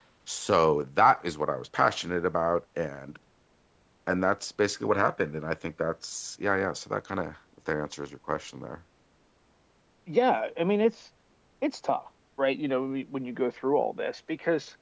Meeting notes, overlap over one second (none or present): none